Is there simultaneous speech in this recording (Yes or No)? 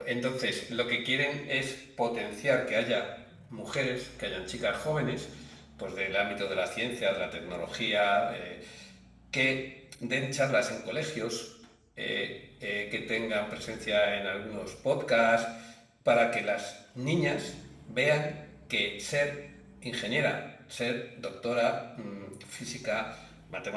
No